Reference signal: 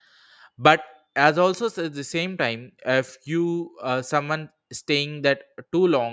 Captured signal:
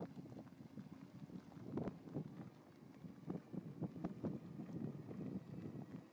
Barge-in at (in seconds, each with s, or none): none